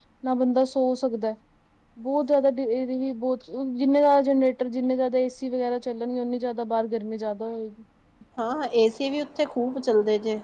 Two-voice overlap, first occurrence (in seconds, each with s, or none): none